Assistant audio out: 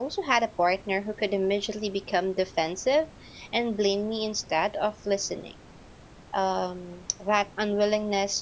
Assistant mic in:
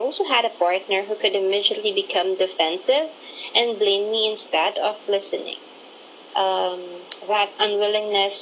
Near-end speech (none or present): none